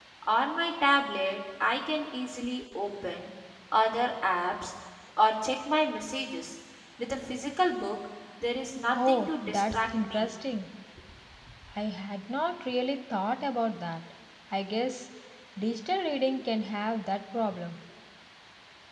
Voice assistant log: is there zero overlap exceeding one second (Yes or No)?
No